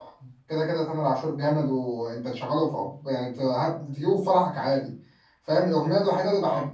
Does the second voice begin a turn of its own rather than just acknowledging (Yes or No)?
No